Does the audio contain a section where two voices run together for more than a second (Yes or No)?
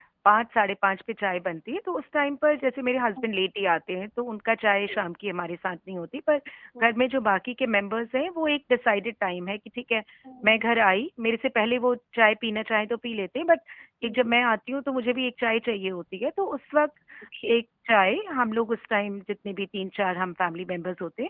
No